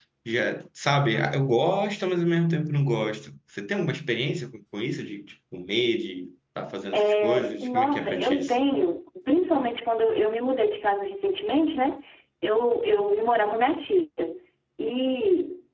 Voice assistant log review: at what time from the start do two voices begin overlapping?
6.9 s

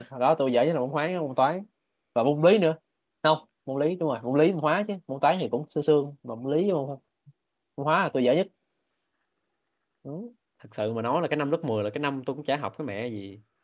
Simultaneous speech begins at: none

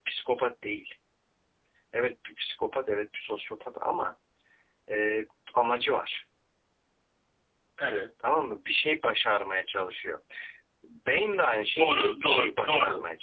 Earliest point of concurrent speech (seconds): 11.8 s

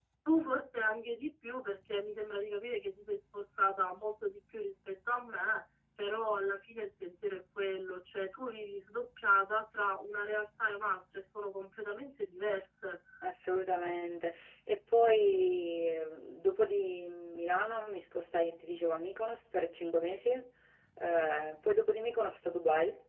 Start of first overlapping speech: none

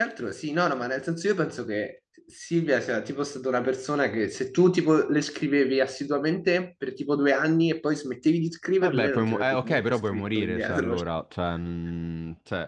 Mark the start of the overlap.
8.8 s

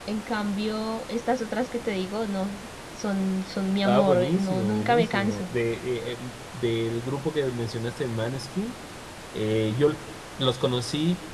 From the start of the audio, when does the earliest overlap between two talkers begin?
3.9 s

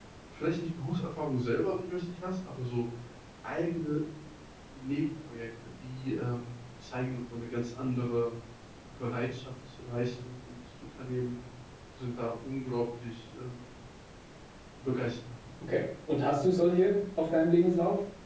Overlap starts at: none

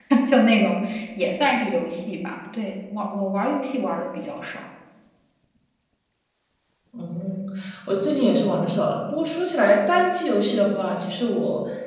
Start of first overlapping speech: none

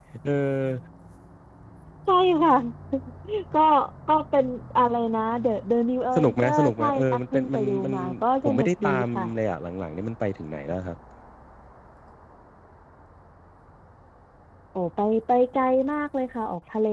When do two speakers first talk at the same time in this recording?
6.2 s

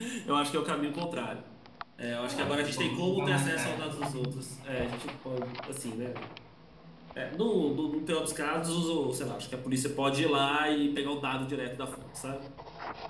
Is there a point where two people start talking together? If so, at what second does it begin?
2.2 s

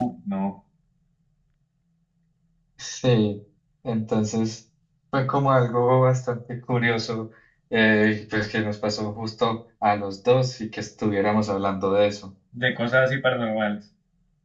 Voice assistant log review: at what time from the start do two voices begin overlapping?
none

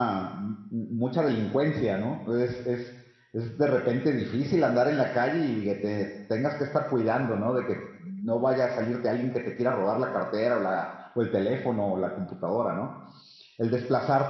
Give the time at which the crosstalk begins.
none

